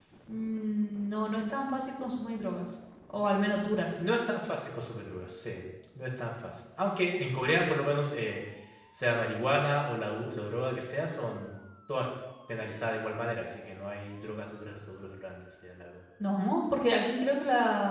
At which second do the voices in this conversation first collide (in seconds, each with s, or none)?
none